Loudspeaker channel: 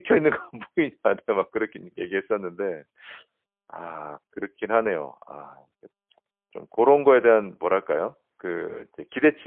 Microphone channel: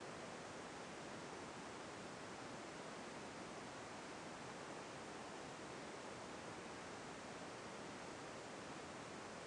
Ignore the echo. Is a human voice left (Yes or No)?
No